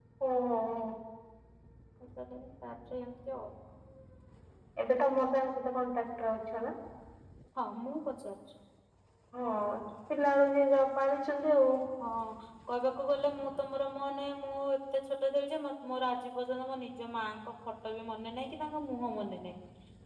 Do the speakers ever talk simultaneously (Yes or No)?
No